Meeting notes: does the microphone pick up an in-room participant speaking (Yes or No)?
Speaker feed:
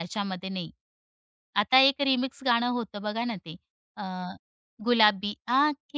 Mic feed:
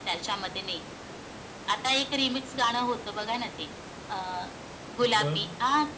Yes